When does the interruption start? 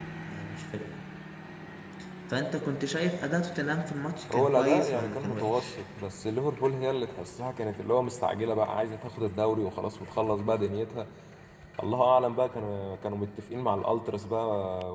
4 s

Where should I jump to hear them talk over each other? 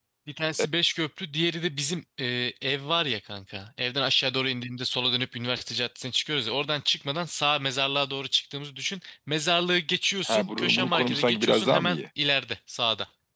10 s

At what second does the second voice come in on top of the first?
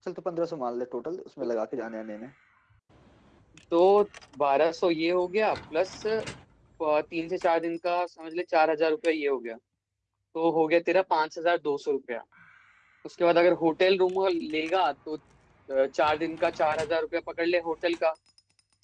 none

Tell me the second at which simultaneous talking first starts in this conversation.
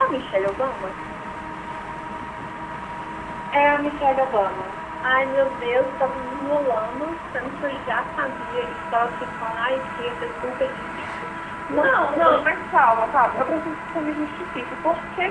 12 s

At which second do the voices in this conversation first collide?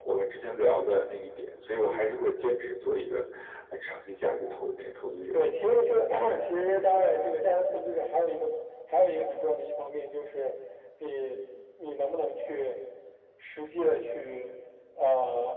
none

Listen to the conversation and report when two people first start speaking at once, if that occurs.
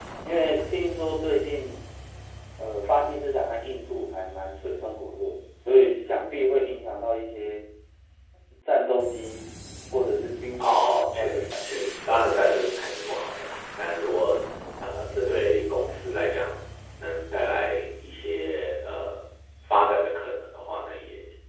11 s

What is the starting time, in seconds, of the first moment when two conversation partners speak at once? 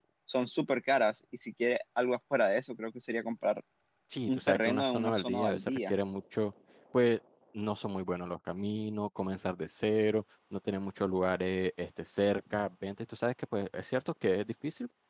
4 s

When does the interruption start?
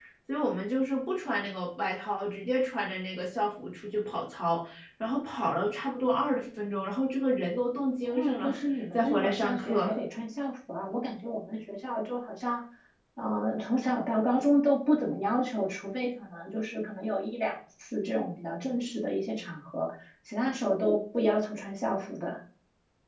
8 s

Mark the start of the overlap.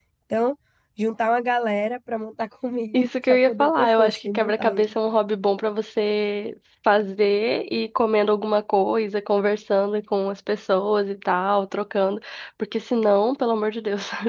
3 s

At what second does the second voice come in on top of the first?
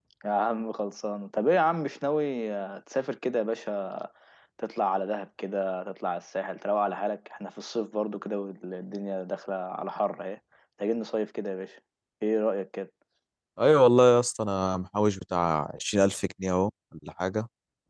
none

